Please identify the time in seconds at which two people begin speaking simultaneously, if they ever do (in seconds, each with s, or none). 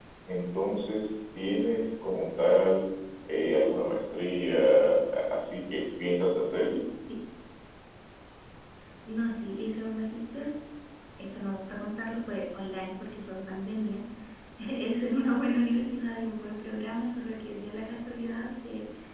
none